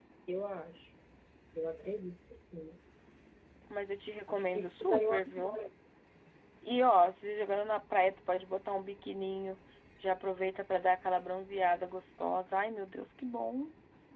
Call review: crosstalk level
present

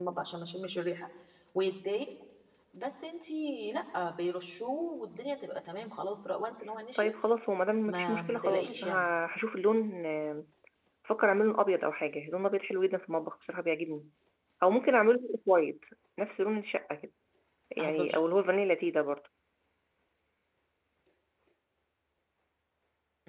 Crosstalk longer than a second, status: present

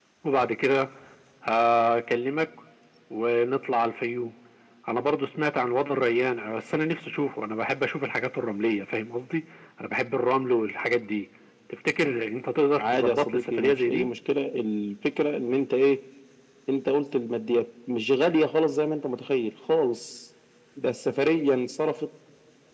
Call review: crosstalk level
present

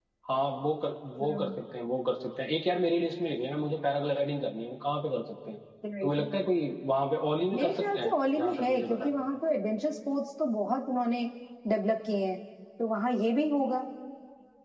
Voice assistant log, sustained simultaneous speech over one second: present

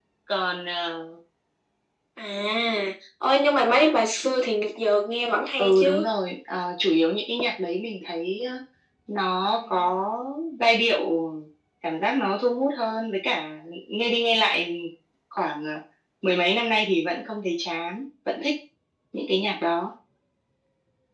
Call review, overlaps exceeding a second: none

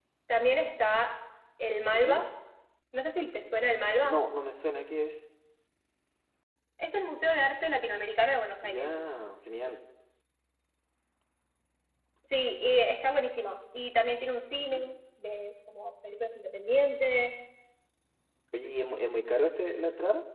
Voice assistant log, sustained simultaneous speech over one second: none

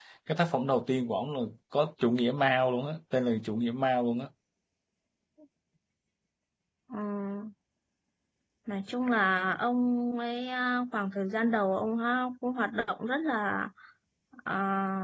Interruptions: none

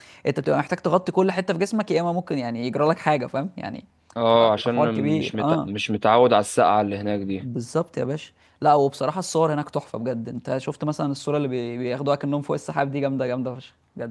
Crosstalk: present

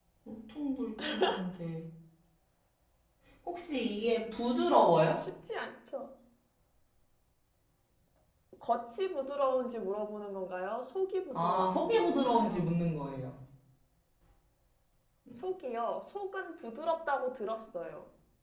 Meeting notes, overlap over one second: present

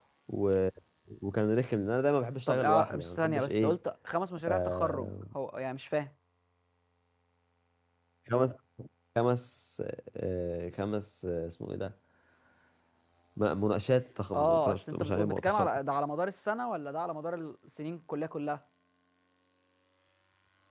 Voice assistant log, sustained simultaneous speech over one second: present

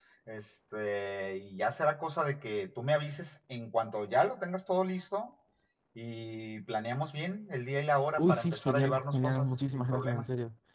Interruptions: present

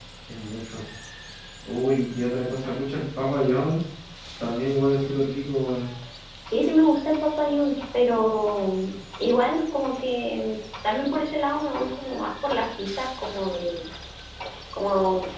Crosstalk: none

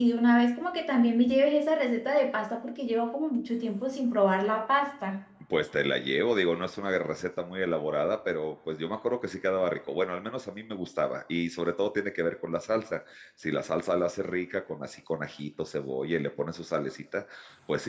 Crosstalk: none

